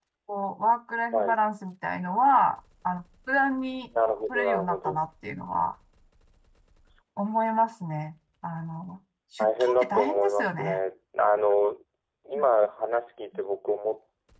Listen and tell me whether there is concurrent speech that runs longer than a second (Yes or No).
Yes